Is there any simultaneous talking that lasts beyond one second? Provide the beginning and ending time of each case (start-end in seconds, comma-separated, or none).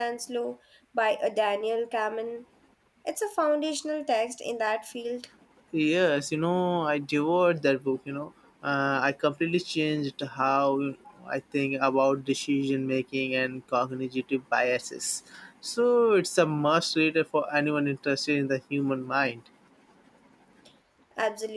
none